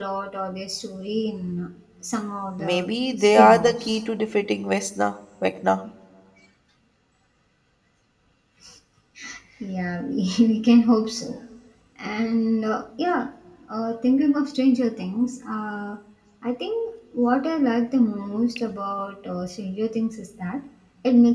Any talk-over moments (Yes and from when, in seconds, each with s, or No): Yes, from 2.6 s